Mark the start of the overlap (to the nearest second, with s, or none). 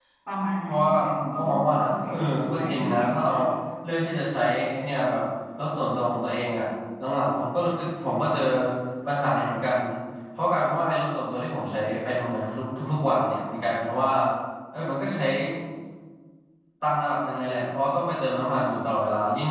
1 s